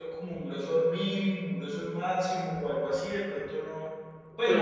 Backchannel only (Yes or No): No